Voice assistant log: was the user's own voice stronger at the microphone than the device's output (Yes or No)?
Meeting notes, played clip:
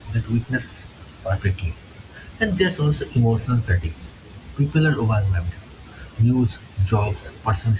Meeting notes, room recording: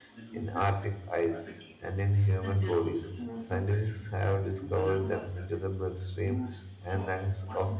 Yes